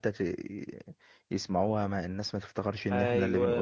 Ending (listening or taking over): taking over